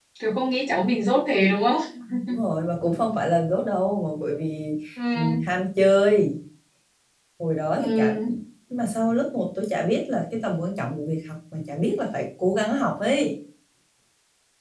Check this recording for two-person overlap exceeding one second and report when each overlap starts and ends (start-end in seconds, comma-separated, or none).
none